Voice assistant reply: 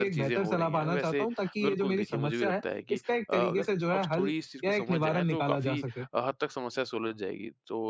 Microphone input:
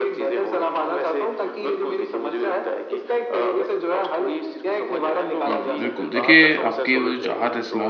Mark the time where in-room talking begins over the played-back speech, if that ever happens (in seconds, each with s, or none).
5.5 s